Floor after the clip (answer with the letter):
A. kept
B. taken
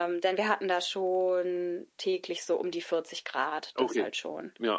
B